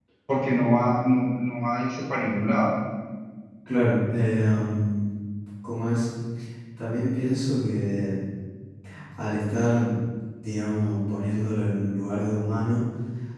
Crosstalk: none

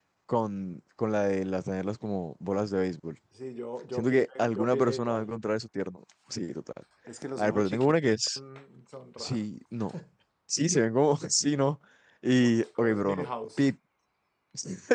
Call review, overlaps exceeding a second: present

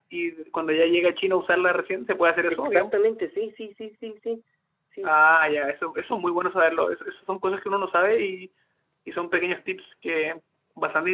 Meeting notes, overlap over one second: none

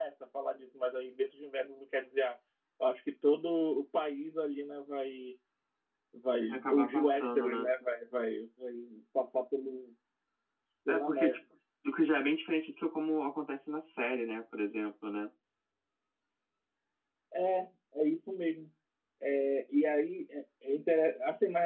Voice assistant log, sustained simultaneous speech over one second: present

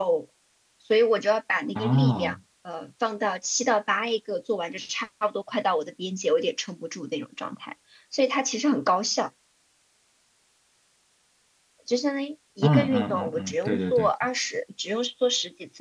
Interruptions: present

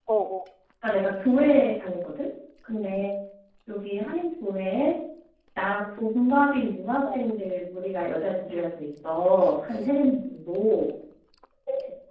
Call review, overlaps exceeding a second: none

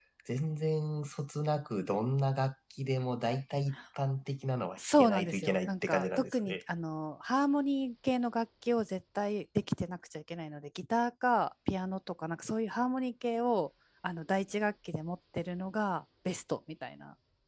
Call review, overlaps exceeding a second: present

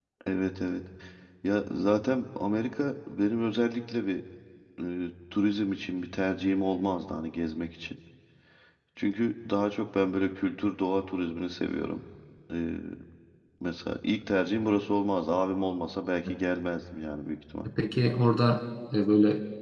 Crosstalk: none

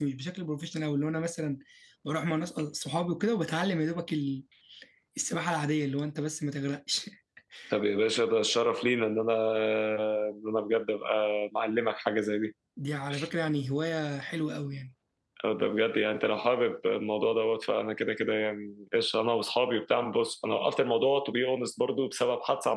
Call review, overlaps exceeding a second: none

